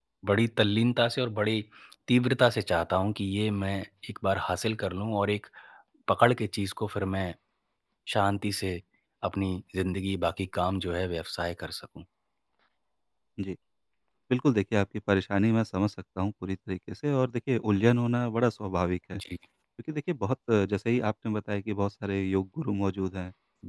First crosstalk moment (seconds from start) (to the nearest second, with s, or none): none